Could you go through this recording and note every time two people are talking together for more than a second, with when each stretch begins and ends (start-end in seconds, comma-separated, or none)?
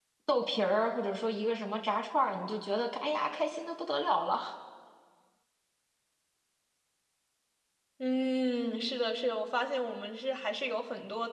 none